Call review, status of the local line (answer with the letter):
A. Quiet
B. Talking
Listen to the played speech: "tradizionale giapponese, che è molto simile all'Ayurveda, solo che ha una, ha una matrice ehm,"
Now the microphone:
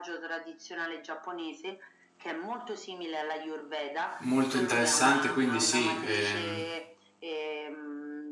B